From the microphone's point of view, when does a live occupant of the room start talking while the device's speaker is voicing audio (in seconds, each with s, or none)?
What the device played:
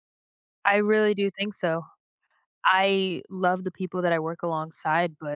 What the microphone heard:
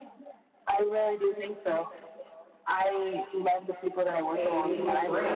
4.3 s